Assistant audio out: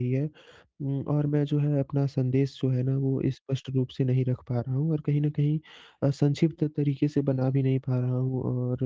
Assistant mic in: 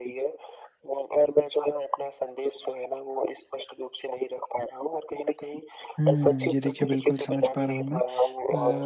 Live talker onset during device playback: 6.0 s

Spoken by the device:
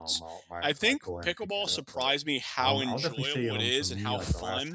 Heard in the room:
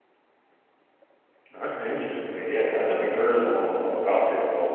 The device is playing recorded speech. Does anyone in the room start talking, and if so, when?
1.5 s

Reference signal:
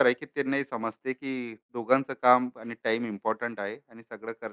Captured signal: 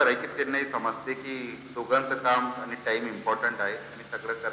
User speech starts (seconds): none

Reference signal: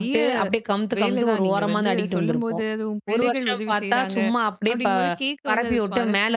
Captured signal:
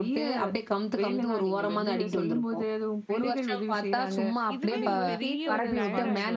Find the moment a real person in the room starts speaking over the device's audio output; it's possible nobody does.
4.5 s

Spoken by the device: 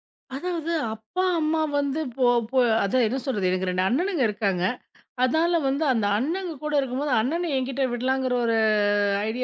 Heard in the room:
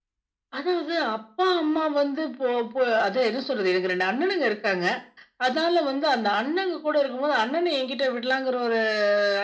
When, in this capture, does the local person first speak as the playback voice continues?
none

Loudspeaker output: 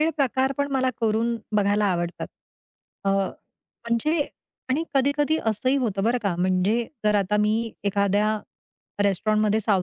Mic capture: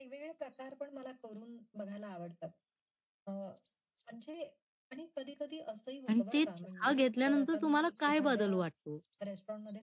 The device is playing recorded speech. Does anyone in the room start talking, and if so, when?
6.1 s

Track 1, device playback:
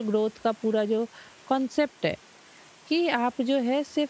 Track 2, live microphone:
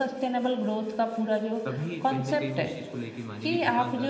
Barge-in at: 1.6 s

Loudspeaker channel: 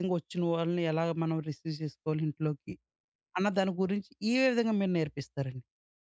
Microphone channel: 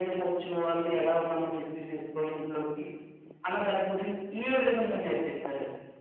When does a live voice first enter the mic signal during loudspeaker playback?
none

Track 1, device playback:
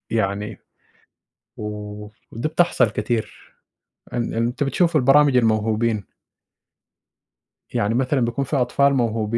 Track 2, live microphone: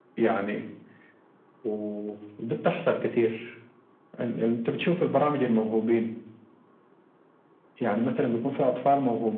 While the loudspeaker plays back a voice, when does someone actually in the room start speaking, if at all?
none

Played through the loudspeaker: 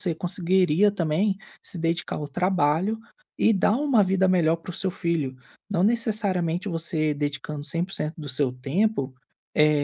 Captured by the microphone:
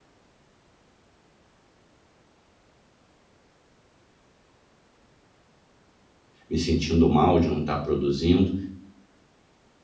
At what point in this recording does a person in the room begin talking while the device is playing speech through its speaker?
6.5 s

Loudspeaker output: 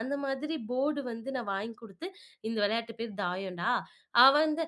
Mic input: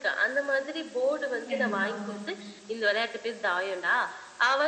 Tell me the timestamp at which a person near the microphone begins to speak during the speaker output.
1.5 s

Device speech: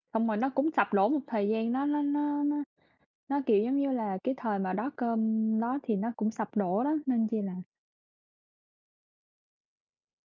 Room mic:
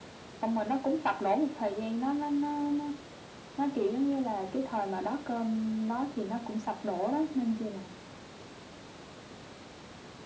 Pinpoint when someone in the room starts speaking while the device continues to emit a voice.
none

